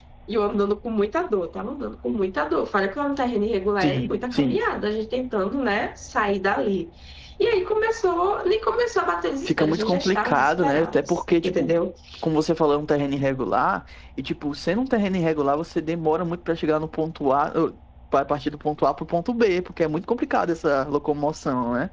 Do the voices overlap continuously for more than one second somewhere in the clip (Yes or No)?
Yes